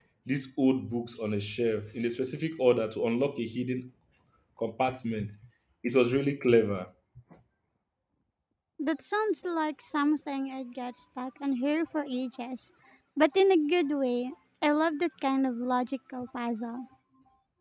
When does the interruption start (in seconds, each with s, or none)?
none